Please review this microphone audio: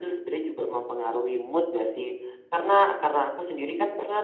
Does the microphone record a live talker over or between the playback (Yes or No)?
No